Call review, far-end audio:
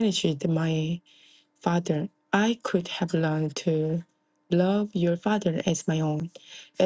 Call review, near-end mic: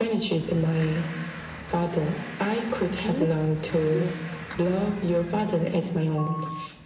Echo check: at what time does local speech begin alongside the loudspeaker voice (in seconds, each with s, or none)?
3.1 s